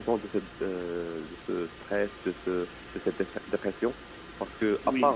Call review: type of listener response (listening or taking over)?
listening